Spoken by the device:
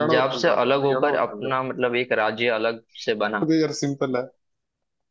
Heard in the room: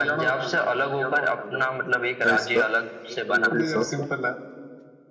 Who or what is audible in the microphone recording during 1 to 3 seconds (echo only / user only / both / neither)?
both